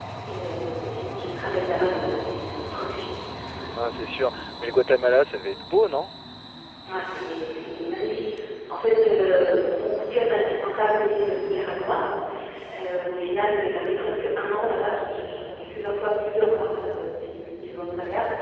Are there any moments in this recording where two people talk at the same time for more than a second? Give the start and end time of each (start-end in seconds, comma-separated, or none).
none